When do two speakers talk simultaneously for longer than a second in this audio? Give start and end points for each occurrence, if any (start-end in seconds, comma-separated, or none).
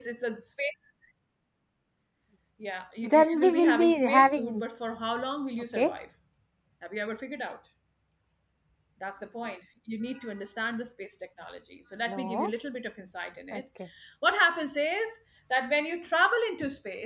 3.0-4.6